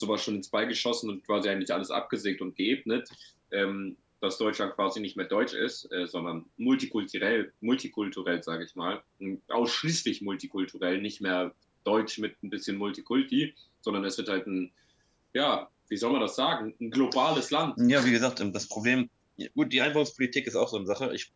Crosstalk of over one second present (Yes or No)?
No